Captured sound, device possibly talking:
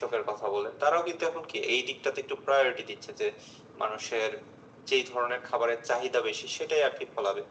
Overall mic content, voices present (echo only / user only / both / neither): echo only